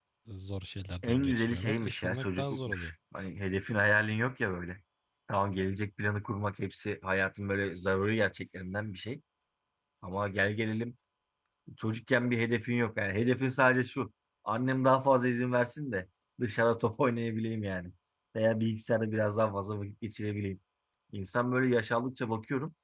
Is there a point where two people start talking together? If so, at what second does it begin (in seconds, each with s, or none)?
1.0 s